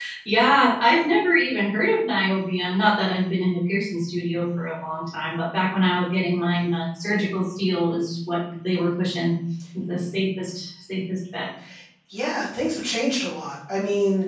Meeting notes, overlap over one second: none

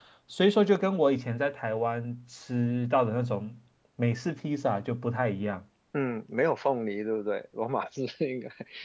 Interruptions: none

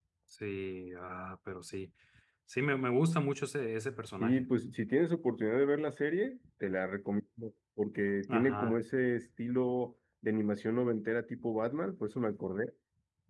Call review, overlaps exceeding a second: none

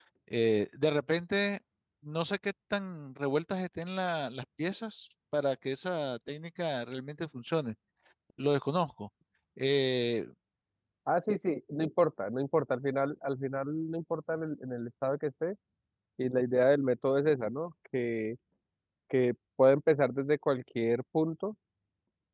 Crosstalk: none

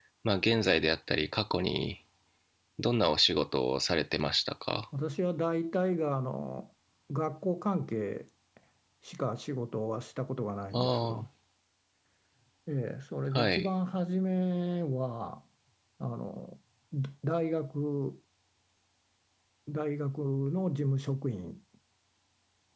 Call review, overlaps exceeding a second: none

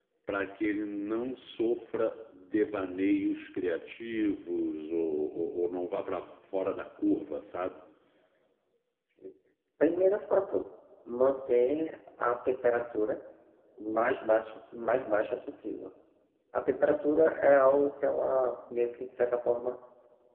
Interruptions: none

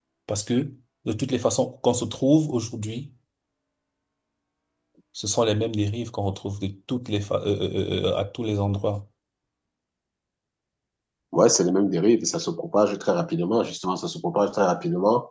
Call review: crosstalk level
none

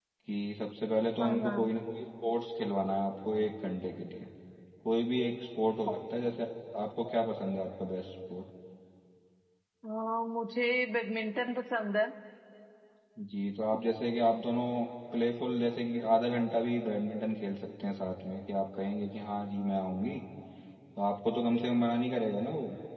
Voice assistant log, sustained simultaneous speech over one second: none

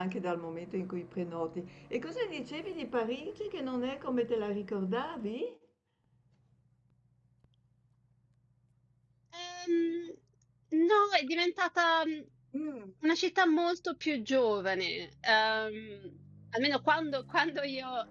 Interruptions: none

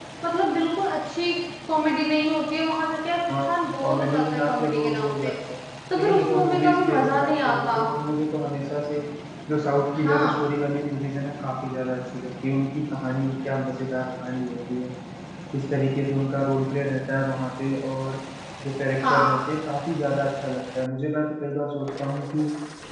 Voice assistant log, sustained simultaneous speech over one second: present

